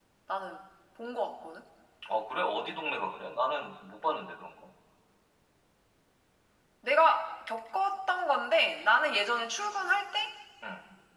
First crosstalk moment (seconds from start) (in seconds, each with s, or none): none